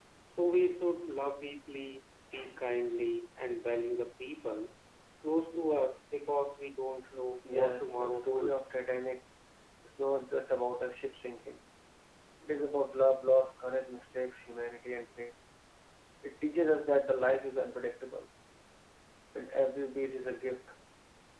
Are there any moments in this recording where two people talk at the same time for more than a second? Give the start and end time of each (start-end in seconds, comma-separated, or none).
7.5-8.8